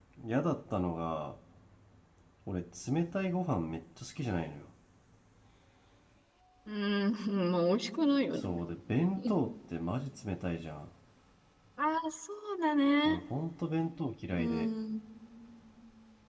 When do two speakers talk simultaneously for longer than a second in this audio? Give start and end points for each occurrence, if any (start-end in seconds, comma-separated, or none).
none